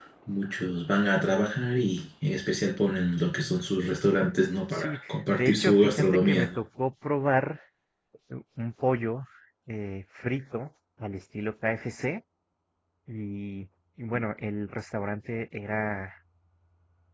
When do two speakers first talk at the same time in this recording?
4.7 s

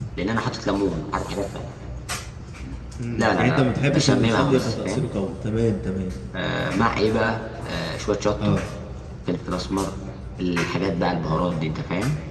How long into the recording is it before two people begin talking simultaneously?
3.1 s

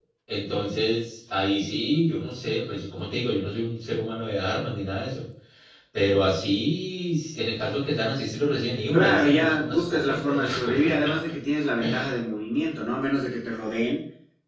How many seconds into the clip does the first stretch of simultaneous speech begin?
8.9 s

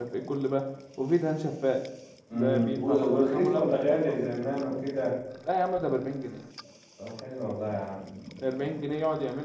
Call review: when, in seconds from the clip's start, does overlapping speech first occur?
2.3 s

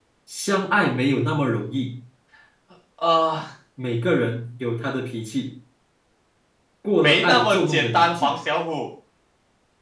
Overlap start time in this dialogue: 7.0 s

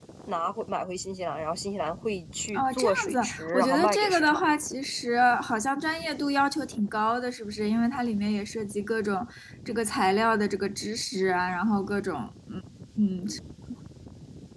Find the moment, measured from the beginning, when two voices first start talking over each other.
2.5 s

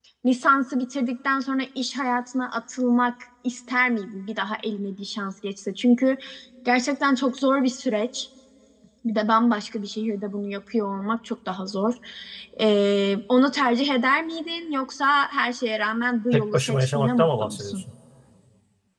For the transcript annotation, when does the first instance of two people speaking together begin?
16.3 s

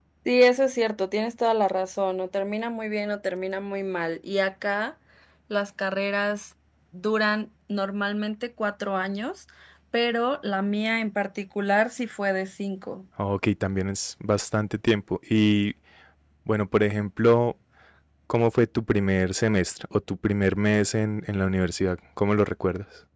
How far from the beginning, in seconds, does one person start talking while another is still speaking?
none

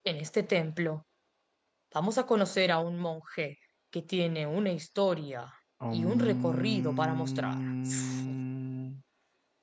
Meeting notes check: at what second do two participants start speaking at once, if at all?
5.9 s

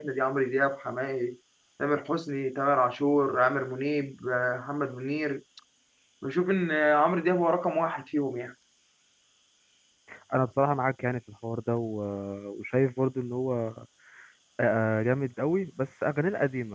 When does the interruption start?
none

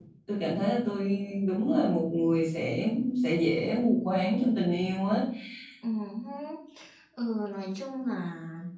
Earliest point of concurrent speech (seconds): none

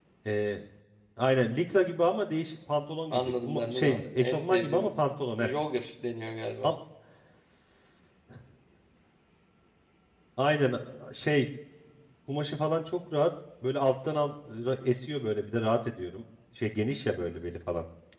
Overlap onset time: 3.1 s

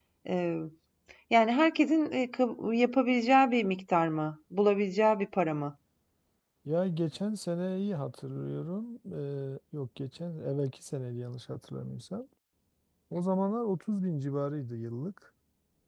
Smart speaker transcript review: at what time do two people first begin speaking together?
none

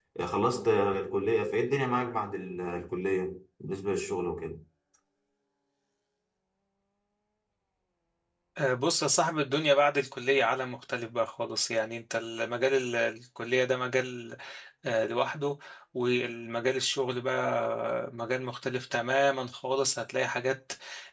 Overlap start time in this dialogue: none

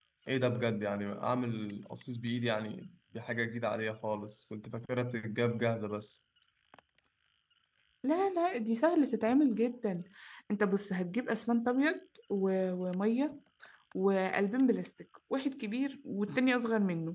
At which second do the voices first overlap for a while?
none

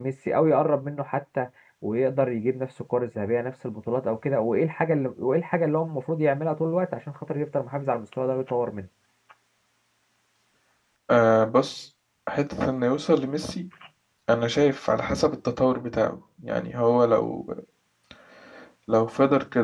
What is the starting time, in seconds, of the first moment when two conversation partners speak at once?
none

